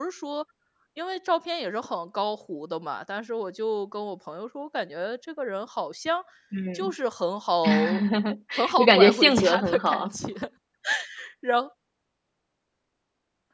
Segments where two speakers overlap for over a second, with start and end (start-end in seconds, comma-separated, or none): 8.8-10.1